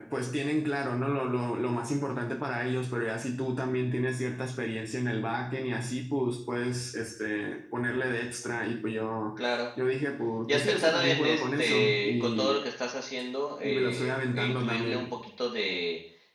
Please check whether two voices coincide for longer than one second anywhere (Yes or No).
Yes